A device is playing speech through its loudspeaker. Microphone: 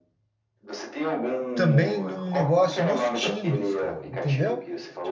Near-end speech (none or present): present